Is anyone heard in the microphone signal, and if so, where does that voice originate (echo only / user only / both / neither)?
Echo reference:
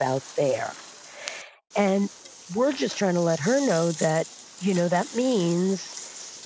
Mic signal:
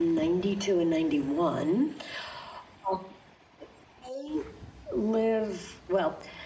user only